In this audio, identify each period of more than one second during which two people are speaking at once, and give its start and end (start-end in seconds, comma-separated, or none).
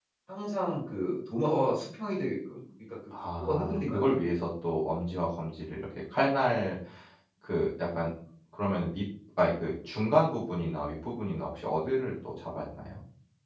3.1-4.5